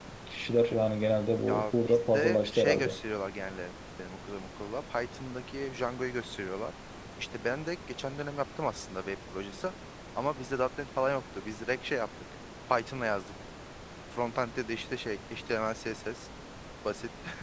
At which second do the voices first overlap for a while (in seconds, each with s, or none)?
1.5 s